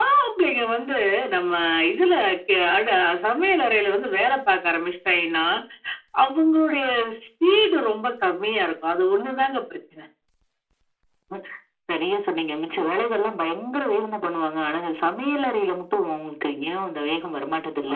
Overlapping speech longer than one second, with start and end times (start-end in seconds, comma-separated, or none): none